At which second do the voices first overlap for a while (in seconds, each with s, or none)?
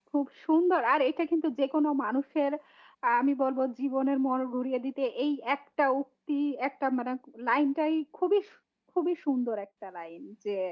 none